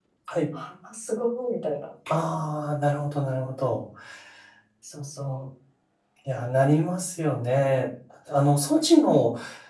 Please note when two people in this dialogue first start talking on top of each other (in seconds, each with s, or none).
none